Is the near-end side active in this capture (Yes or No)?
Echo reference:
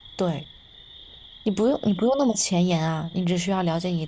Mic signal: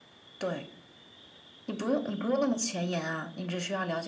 No